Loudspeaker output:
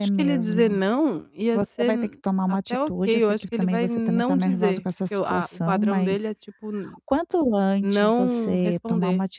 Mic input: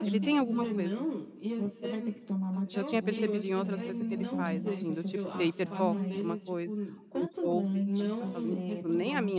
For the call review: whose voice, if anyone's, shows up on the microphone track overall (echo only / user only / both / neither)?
both